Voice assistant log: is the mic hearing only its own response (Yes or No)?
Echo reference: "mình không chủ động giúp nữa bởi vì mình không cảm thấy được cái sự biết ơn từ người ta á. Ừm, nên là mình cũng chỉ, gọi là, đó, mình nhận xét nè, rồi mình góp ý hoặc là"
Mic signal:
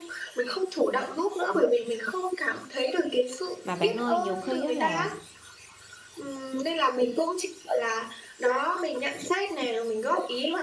No